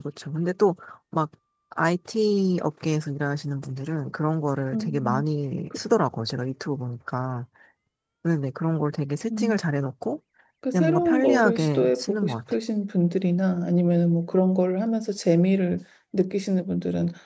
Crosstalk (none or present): present